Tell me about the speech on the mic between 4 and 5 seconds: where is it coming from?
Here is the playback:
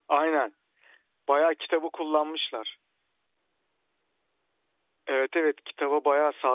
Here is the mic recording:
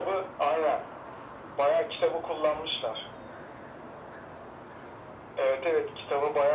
neither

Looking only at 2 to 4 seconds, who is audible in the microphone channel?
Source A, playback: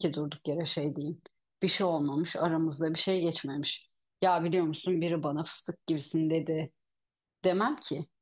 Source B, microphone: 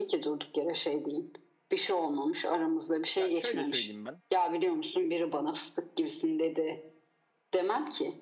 both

